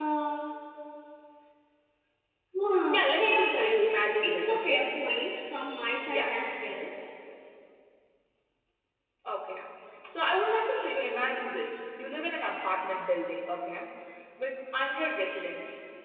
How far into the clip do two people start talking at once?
2.9 s

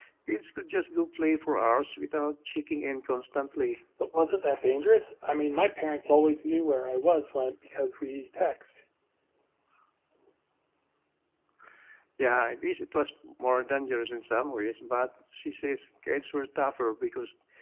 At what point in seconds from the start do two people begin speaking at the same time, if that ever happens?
none

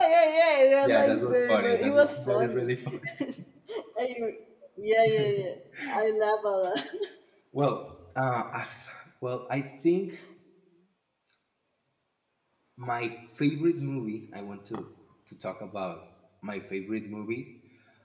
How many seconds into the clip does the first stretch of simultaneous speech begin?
0.8 s

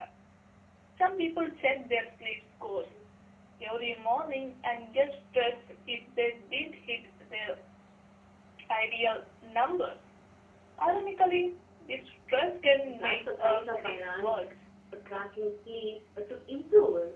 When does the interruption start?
12.9 s

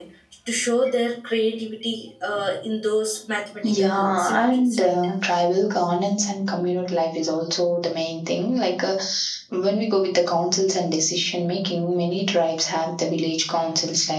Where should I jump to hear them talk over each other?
3.6 s

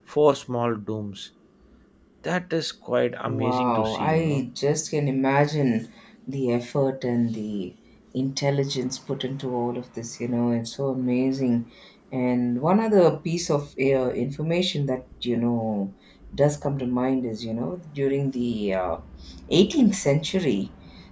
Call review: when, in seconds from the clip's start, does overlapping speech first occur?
3.2 s

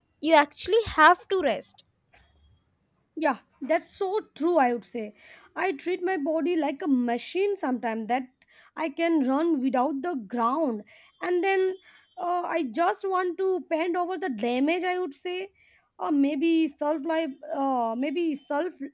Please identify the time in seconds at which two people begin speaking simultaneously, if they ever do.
none

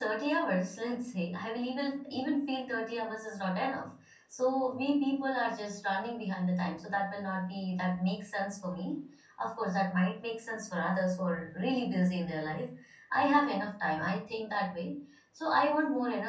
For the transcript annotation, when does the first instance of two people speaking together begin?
none

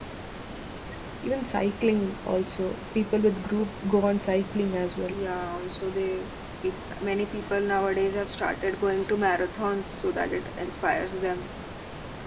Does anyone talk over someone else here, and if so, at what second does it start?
none

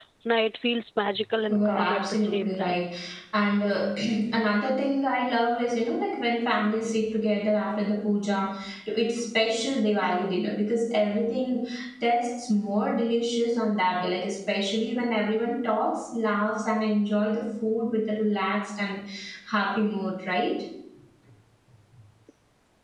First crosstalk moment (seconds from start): 1.5 s

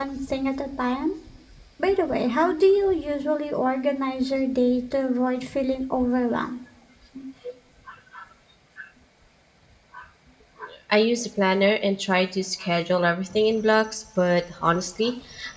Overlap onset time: none

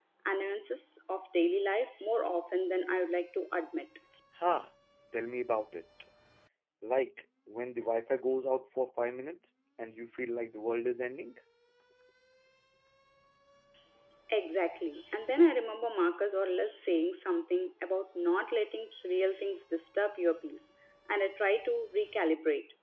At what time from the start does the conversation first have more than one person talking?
none

